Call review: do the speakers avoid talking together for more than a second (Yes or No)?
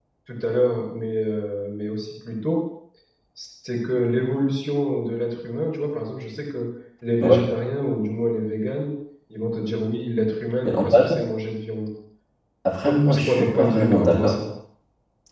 No